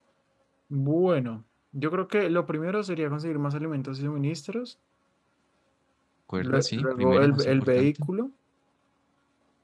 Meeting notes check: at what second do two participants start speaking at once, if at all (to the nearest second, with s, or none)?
6 s